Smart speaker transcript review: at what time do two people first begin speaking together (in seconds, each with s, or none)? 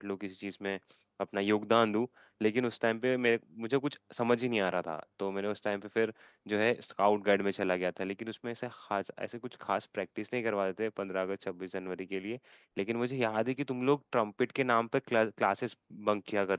none